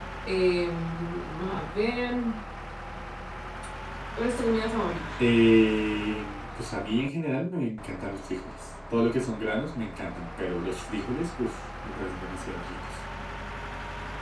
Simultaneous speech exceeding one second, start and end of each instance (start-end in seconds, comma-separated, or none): none